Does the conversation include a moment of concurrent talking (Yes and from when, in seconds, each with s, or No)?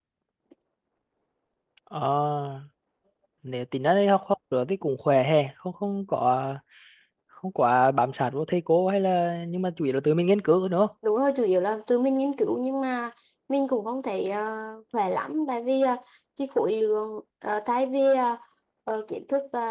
No